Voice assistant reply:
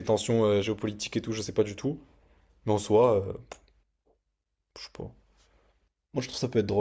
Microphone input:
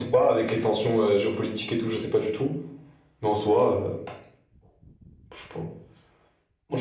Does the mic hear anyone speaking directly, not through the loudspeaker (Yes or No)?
No